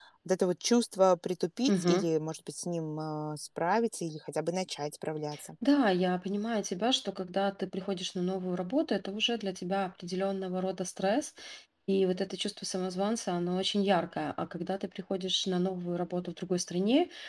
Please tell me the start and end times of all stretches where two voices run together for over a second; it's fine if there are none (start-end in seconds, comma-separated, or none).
none